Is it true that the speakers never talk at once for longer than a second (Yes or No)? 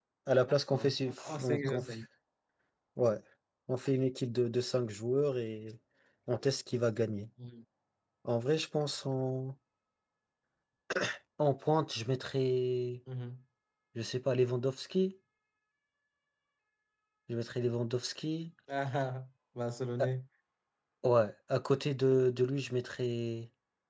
No